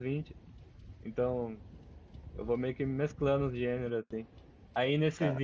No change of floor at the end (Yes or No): Yes